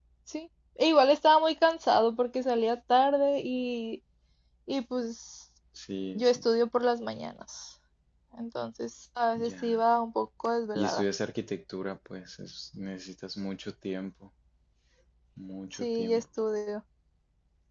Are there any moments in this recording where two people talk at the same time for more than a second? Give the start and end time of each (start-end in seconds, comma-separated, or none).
none